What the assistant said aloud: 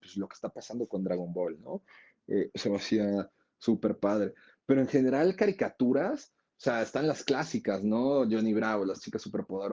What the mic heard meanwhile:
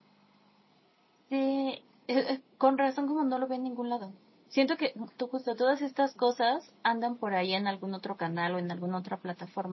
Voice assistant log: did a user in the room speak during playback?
Yes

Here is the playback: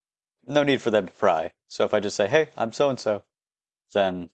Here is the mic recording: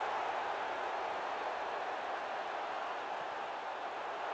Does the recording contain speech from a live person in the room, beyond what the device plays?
No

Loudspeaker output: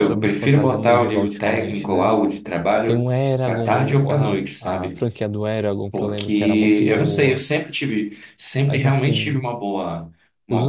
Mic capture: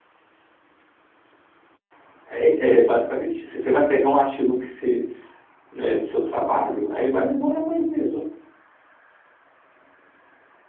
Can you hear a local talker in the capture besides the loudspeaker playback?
Yes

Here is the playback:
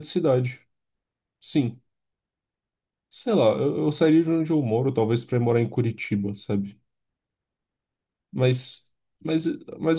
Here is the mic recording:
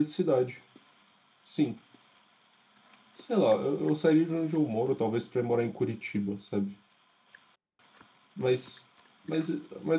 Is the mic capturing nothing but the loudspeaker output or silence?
Yes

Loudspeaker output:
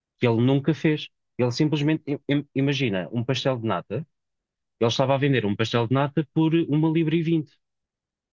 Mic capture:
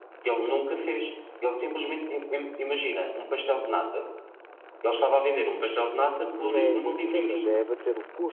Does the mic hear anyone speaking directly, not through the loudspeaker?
Yes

